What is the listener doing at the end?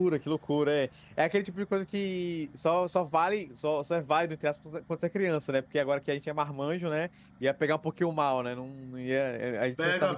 taking over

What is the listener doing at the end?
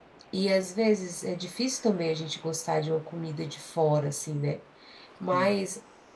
listening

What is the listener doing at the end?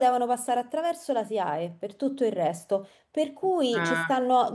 listening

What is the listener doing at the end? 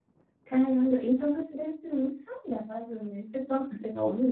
listening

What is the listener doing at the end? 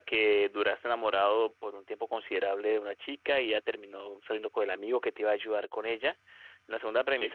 listening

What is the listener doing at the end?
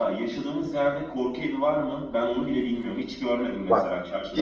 taking over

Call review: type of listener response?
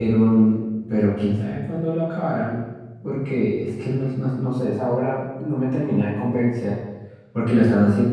listening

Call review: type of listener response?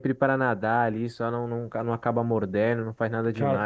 listening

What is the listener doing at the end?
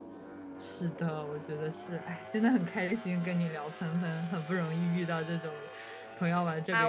taking over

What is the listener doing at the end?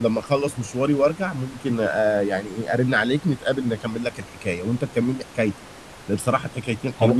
listening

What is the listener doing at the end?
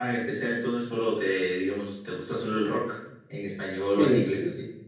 taking over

